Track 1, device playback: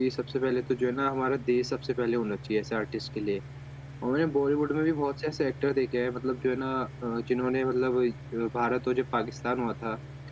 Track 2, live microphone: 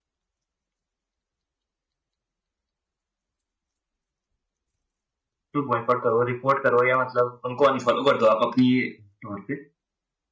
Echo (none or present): none